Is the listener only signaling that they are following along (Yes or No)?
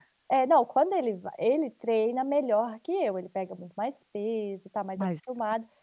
Yes